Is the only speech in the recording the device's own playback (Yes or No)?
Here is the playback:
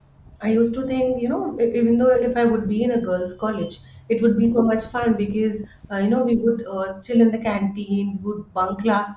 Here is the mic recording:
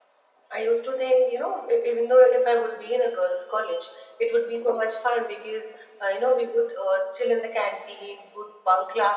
Yes